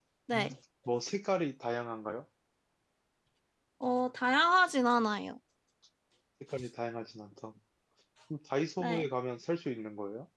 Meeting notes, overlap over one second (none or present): none